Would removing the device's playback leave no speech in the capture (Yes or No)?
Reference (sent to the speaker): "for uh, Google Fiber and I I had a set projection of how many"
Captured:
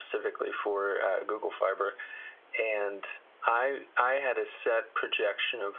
Yes